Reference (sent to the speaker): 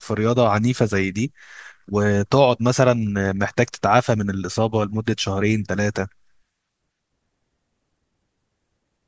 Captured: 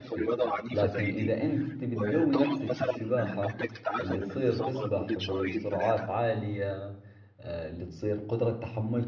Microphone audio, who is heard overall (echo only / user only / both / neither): both